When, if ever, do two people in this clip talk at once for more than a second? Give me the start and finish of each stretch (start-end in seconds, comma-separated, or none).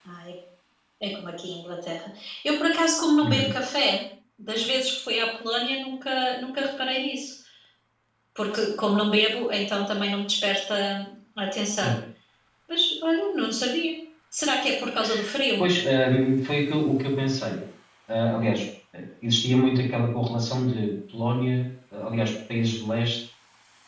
none